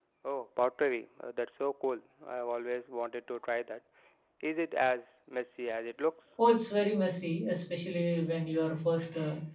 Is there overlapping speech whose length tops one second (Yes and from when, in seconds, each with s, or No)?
No